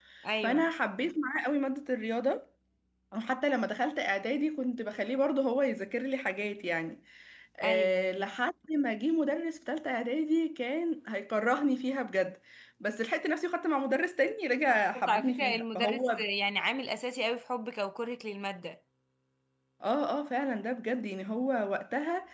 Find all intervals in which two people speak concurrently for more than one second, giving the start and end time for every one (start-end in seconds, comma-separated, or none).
14.7-16.2